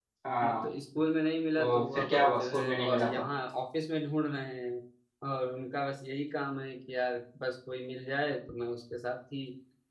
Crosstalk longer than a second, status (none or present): present